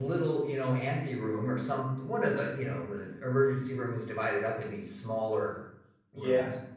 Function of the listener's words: listening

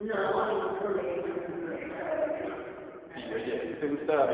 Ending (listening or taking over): taking over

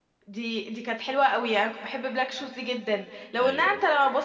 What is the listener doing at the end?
listening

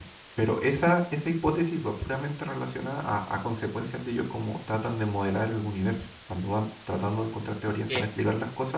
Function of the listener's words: listening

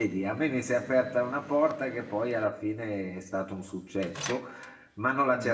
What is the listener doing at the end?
listening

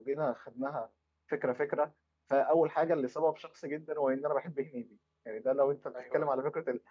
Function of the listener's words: listening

